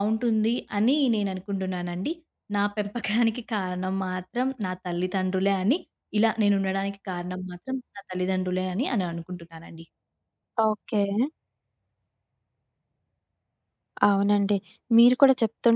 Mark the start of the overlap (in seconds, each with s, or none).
none